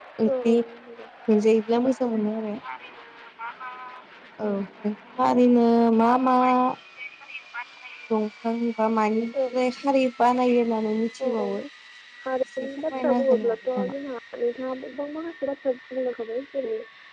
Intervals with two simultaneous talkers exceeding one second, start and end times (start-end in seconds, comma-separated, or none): 12.6-13.9